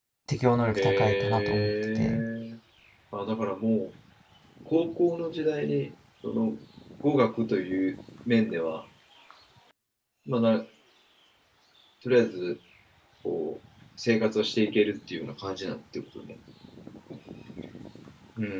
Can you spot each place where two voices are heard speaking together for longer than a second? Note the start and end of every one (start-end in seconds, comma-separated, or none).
0.7-2.2